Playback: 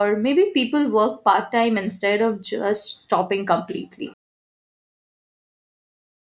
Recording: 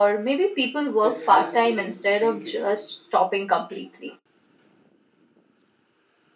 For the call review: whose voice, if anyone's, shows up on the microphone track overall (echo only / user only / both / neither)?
both